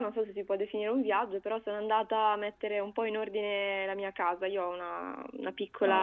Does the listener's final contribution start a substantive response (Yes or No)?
No